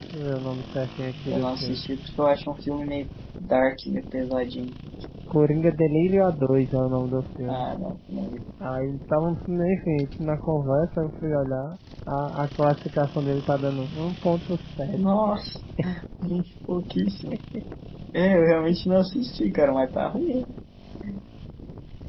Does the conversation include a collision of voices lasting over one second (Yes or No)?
No